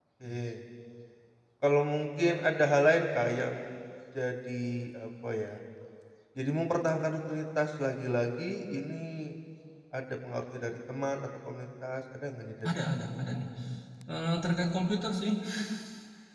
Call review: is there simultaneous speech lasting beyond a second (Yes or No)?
No